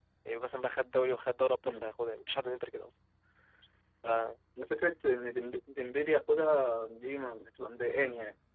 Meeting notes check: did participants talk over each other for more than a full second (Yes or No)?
No